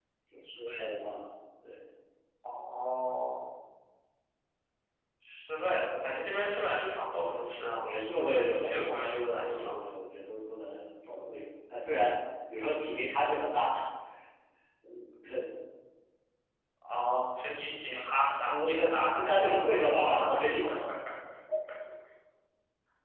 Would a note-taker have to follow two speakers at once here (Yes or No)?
Yes